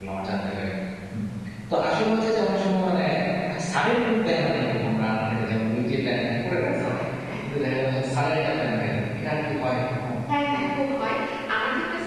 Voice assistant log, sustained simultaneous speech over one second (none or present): none